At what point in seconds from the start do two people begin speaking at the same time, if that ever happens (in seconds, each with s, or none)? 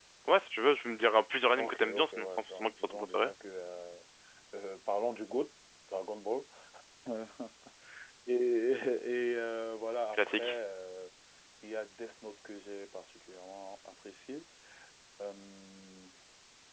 1.6 s